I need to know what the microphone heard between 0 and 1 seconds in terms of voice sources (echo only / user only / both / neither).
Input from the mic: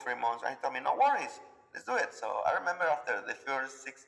echo only